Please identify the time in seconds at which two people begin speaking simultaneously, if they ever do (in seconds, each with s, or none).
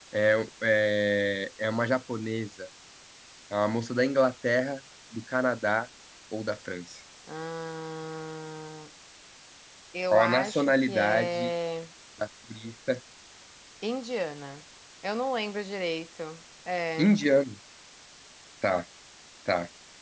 10.1 s